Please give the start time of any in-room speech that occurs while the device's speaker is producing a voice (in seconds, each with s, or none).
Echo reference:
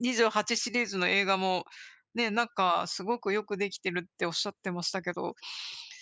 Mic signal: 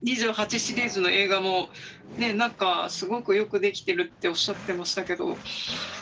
none